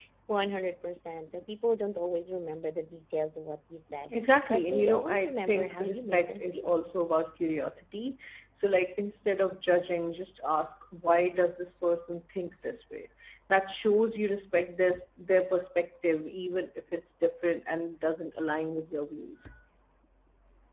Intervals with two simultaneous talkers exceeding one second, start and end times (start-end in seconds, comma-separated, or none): 4.1-6.7